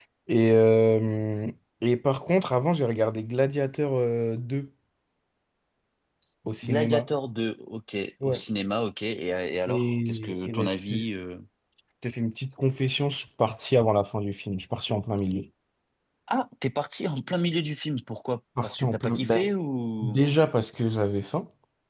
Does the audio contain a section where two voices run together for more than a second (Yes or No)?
Yes